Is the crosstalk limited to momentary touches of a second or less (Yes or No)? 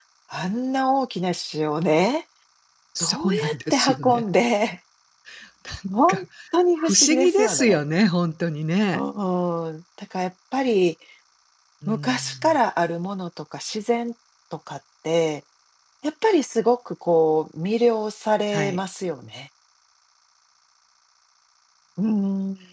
No